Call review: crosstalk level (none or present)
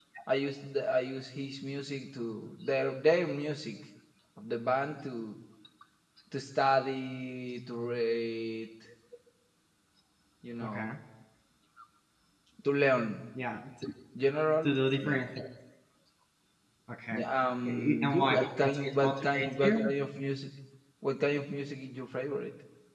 present